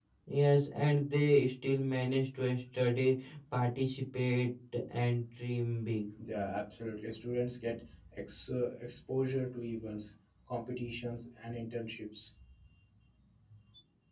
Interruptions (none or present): none